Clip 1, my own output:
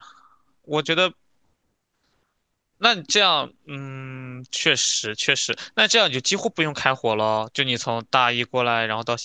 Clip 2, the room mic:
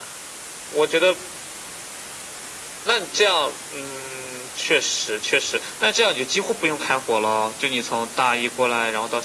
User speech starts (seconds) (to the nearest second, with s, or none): none